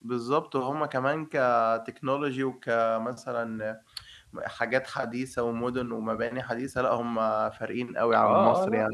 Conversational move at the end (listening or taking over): taking over